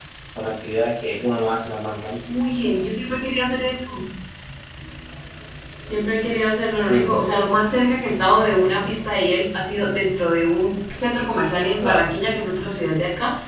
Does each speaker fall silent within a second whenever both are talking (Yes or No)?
Yes